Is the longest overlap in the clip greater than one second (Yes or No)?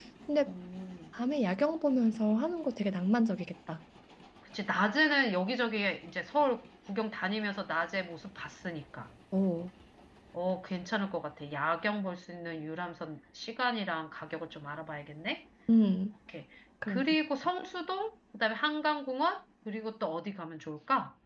No